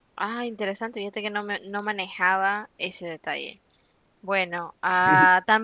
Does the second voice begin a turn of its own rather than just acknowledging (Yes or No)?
No